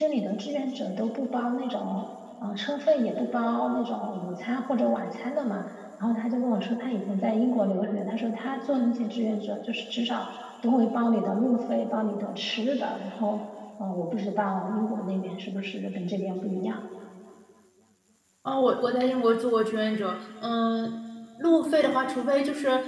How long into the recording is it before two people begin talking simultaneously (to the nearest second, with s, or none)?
none